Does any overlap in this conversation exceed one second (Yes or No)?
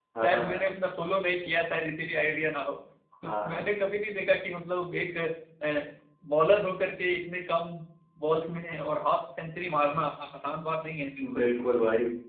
No